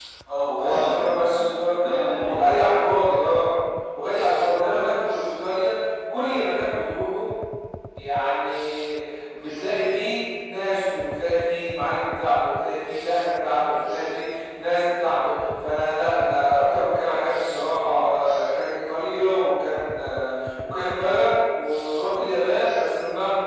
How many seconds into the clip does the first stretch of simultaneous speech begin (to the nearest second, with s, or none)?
1 s